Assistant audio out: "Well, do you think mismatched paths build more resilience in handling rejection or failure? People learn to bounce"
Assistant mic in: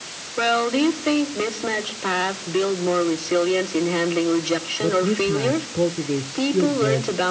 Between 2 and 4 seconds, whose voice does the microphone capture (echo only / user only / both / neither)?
echo only